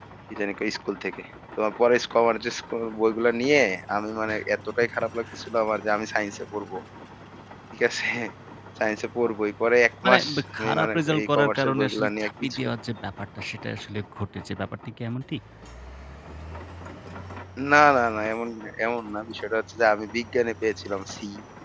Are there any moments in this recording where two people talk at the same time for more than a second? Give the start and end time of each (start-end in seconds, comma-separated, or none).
10.0-12.6